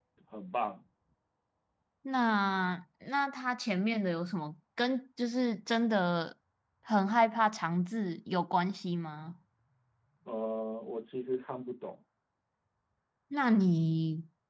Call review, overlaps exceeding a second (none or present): none